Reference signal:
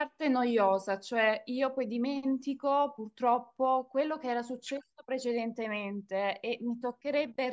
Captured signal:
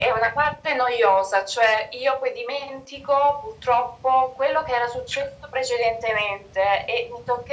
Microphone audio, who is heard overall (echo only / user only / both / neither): echo only